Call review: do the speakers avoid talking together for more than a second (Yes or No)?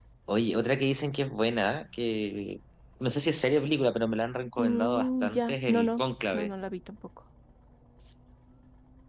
No